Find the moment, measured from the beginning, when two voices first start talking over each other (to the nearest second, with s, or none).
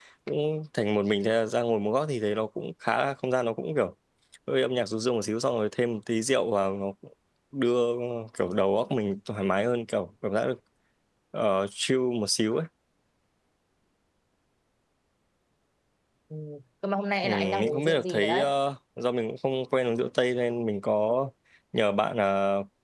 17 s